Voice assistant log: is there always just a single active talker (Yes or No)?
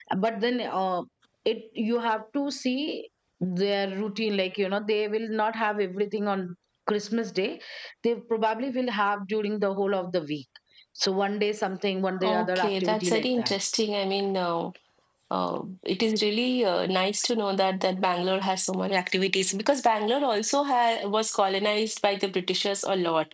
No